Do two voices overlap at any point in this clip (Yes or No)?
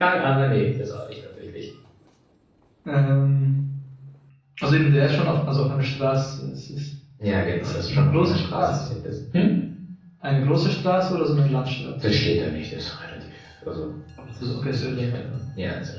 Yes